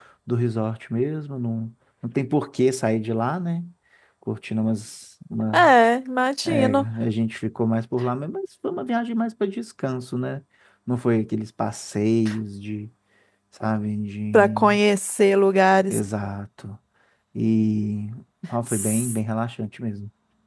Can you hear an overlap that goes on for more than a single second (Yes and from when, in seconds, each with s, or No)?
No